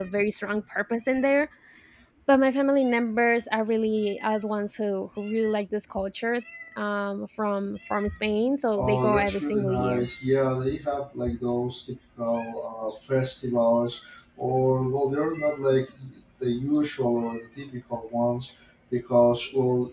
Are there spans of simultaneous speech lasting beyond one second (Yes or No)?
Yes